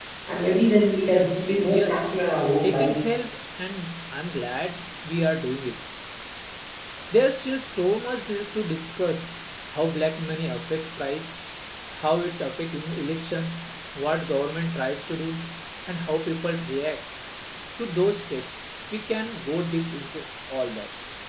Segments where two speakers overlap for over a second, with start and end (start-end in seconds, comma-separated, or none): none